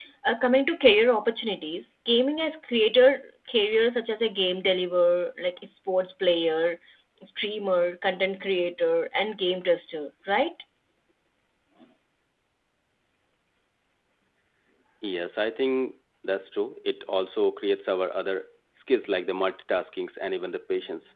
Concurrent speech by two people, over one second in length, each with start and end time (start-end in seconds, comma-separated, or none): none